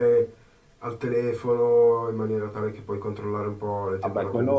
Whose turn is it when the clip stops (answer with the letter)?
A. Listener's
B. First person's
A